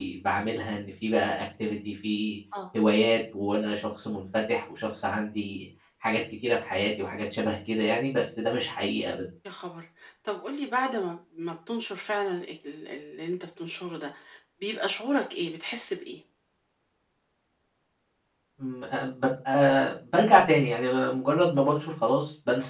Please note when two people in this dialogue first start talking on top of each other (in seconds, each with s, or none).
none